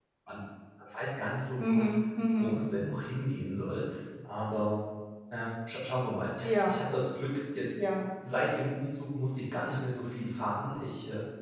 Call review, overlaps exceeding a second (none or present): none